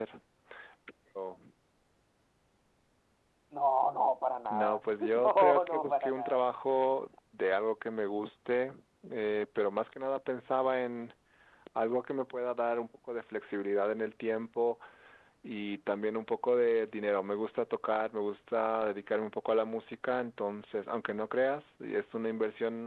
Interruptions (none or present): present